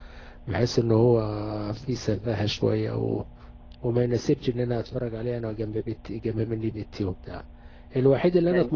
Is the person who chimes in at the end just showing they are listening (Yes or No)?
Yes